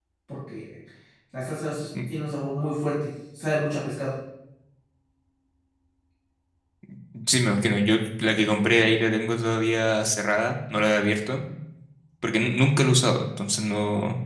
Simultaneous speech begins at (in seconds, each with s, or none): none